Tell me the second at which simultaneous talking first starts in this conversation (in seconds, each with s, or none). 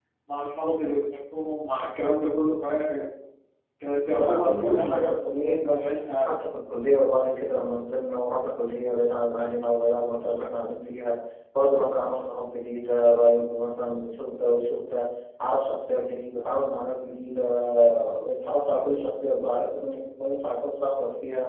4.1 s